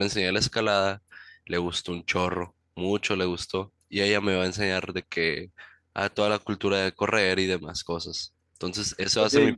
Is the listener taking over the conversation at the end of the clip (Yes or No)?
No